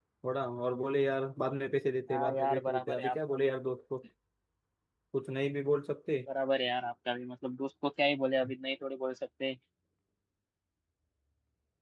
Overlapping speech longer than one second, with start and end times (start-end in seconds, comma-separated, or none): 2.1-3.5